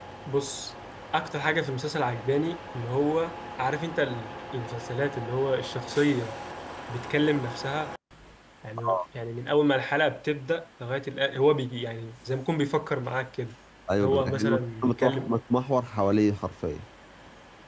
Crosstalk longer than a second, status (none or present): present